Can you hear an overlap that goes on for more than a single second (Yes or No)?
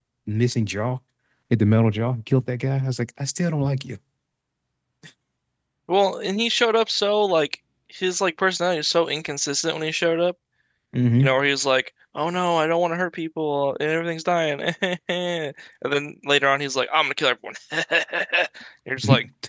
No